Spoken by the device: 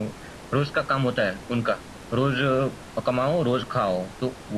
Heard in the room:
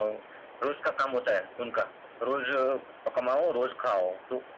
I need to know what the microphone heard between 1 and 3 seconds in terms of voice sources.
echo only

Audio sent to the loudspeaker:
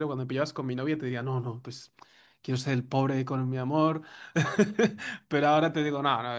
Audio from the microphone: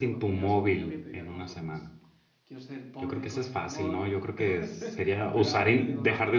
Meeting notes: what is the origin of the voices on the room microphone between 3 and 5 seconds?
both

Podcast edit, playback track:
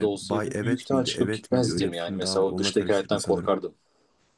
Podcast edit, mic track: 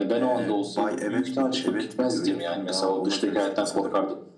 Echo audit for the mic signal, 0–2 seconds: echo only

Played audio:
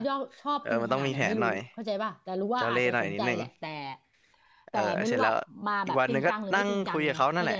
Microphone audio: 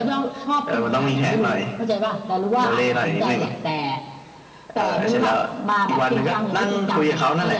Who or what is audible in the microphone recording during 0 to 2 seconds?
echo only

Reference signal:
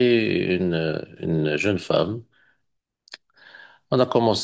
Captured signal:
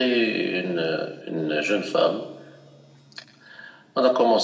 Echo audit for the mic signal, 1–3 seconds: echo only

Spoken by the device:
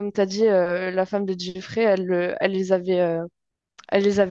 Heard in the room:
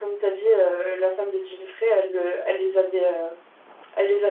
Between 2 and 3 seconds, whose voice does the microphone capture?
echo only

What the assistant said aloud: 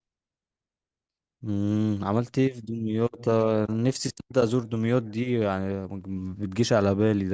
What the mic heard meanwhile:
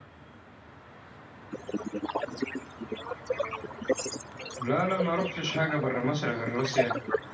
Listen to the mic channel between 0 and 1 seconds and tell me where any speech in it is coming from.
neither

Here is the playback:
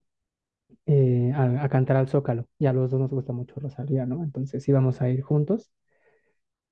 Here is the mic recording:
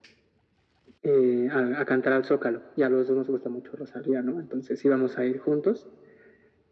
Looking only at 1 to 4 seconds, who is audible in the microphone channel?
echo only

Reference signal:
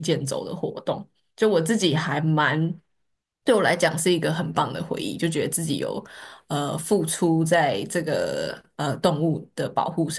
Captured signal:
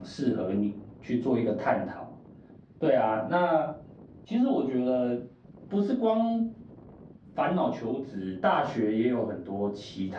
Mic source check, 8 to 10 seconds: user only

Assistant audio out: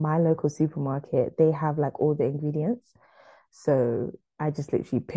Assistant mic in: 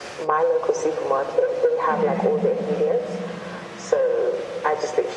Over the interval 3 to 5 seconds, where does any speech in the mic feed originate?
echo only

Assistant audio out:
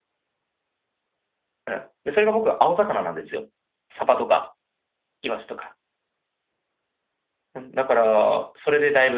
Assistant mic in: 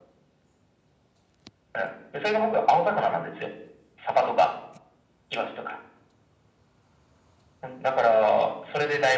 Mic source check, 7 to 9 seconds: echo only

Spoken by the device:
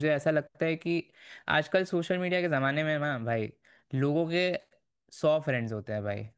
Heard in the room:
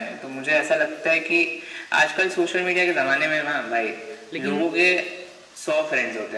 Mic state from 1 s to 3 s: echo only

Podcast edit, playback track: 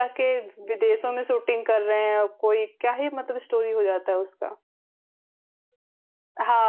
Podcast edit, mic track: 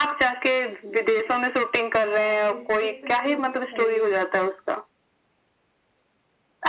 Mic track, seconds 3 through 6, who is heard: both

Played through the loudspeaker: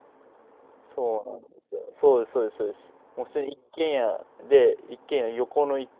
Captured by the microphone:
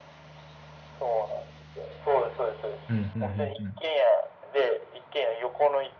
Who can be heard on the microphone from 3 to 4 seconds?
both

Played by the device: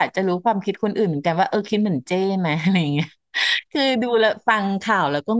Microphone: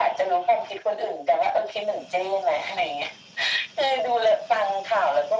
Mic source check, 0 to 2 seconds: echo only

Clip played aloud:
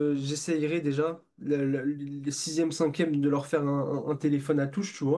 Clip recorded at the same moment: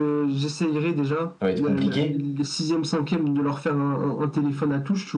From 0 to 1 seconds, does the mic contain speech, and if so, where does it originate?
echo only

